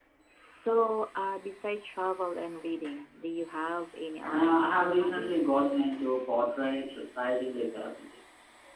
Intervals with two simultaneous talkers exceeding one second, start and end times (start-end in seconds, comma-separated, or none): 4.2-5.5